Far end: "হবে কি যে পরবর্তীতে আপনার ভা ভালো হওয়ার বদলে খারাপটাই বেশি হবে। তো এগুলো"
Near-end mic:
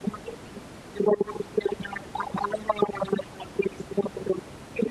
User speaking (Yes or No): No